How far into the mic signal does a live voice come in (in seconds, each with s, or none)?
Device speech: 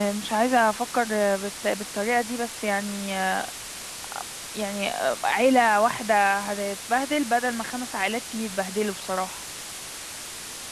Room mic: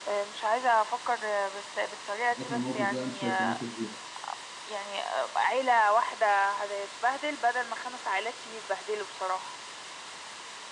2.3 s